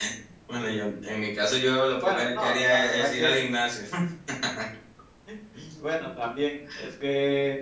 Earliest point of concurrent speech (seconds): 2.0 s

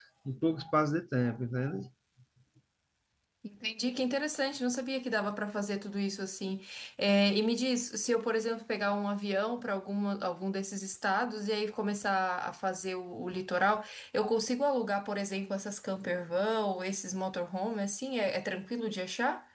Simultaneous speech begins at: none

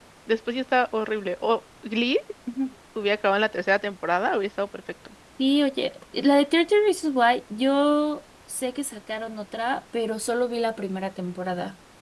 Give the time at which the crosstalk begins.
none

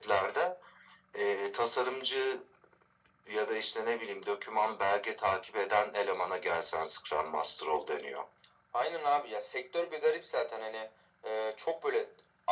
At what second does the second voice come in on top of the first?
none

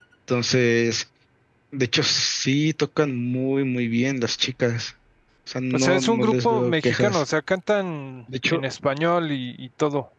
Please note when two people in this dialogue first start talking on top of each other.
5.7 s

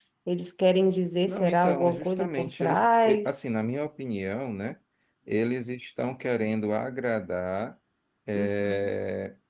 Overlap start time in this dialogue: 1.3 s

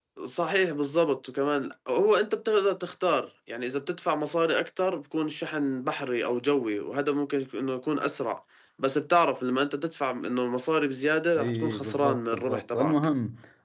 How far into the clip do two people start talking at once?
11.4 s

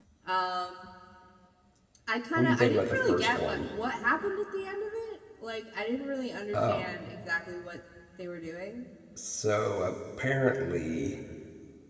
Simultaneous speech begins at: 2.3 s

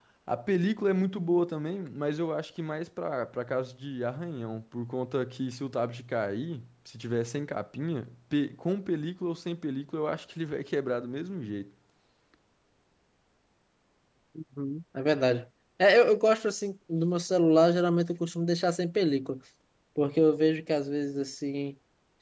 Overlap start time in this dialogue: none

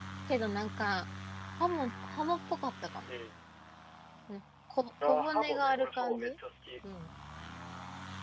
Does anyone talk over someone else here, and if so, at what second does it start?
5.0 s

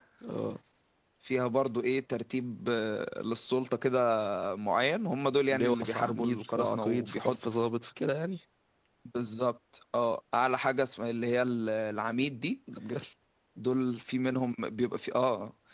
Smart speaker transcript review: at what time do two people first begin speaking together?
5.5 s

